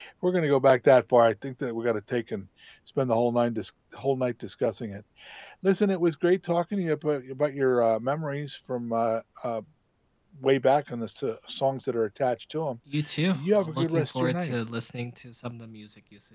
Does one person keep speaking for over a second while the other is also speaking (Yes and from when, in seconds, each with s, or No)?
Yes, from 13.3 s